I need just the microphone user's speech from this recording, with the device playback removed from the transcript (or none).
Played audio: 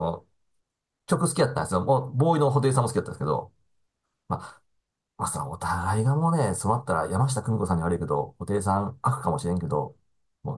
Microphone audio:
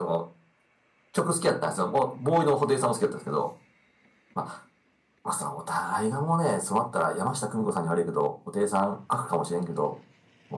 none